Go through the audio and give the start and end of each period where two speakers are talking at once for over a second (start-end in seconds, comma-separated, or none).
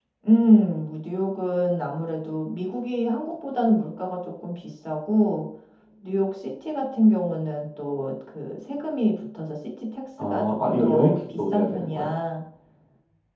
10.2-12.1